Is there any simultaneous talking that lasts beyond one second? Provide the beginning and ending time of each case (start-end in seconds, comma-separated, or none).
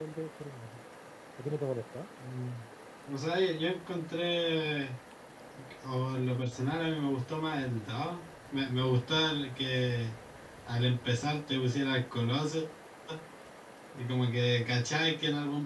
none